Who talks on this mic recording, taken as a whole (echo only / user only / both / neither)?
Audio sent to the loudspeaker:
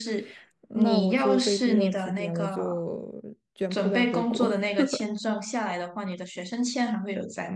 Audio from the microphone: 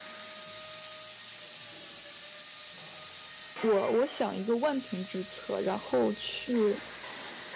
user only